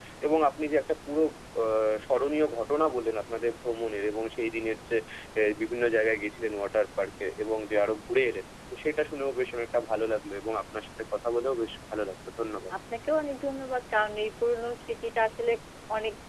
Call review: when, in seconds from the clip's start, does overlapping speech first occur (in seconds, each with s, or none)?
none